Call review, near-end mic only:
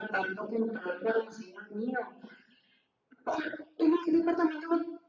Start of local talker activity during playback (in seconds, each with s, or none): none